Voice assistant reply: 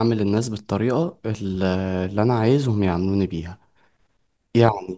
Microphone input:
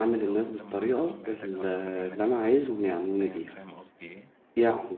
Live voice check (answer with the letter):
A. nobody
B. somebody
B